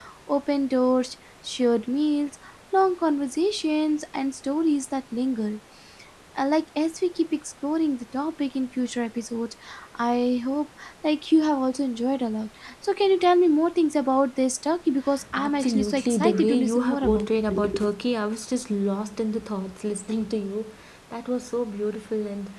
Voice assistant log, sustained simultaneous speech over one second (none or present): present